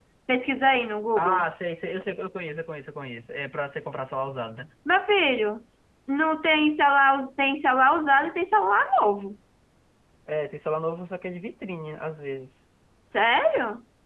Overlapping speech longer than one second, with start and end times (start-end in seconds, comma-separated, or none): none